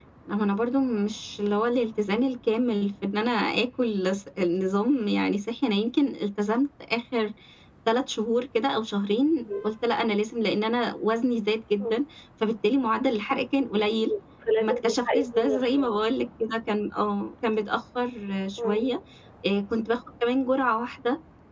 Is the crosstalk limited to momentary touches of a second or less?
No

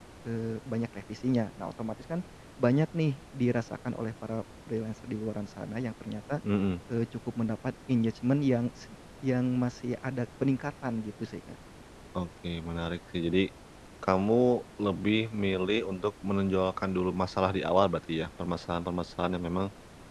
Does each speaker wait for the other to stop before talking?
Yes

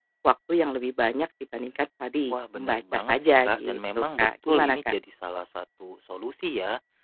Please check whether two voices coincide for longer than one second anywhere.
Yes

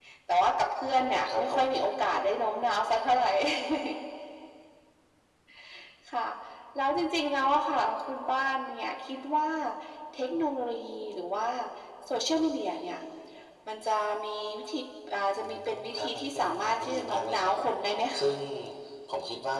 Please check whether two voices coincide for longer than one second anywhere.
Yes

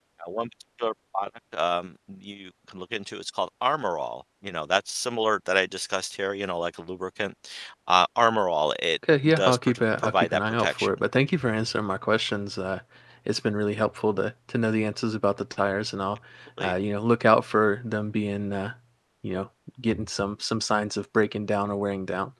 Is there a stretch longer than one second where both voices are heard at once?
Yes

